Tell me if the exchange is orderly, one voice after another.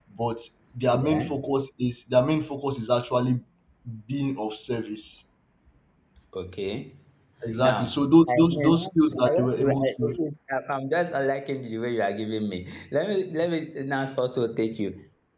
No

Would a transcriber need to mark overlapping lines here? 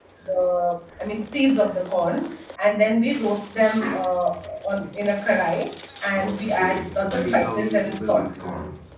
Yes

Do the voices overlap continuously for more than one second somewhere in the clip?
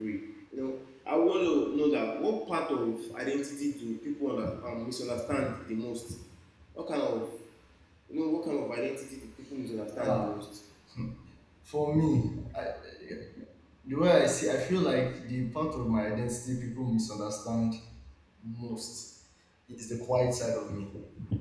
No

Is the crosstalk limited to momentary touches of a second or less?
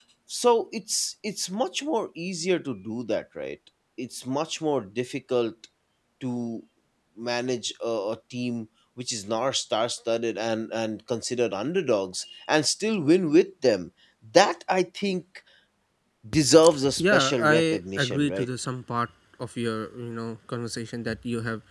No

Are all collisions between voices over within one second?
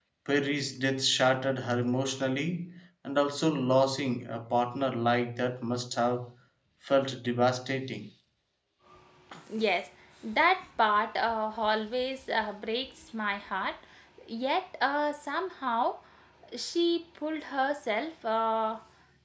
Yes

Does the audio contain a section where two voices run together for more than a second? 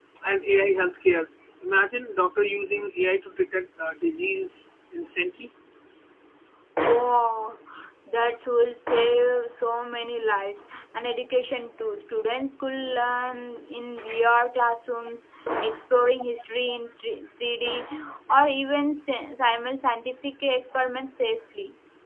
No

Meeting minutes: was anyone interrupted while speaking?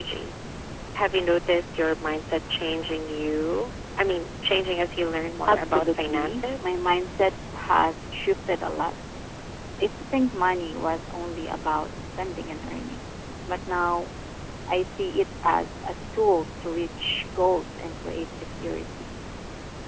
Yes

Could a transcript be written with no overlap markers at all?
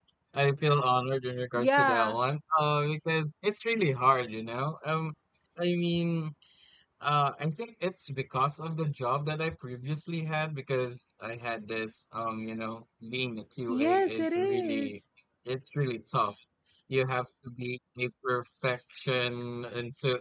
No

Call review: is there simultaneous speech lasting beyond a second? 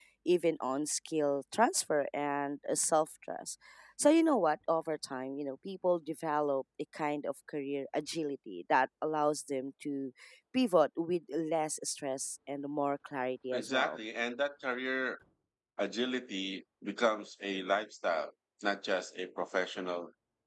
No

